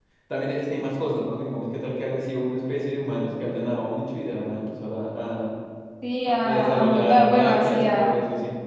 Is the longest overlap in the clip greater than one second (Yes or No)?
Yes